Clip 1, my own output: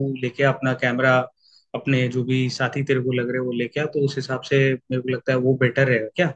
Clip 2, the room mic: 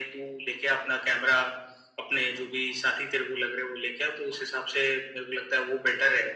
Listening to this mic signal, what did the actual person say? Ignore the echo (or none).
none